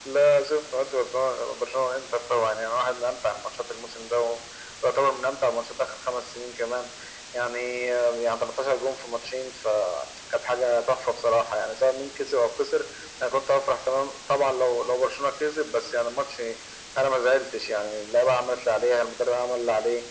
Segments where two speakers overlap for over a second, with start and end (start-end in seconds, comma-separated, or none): none